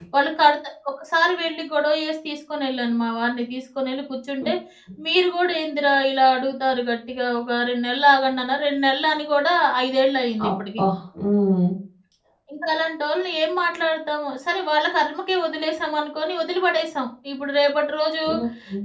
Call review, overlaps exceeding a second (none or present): none